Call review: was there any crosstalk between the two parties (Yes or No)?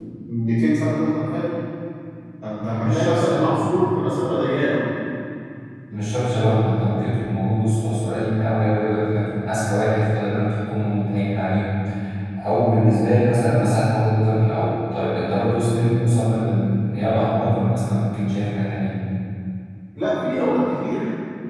Yes